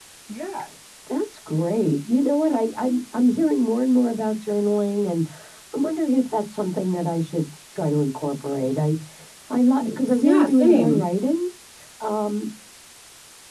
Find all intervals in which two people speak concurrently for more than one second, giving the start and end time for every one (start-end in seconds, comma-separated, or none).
9.8-11.0